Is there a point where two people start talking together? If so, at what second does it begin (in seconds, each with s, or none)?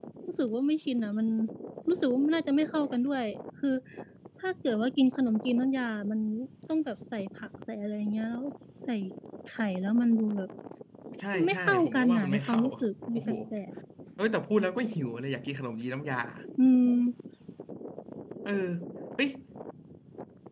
11.3 s